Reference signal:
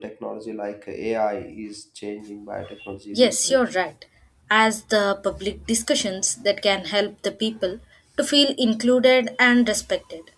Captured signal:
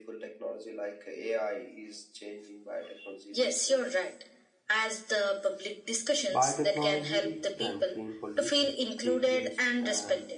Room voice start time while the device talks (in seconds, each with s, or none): 6.3 s